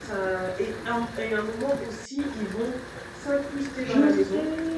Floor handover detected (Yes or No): Yes